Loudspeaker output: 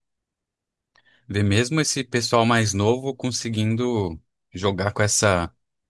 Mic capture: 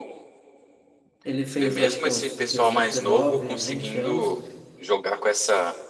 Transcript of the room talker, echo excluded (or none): ele fez, eu acho que uns 18, 19, 20 anos,